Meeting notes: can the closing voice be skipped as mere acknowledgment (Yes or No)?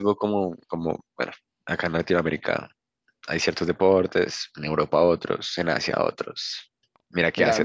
No